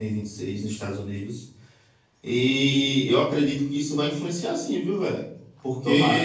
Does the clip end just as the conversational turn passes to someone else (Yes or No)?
No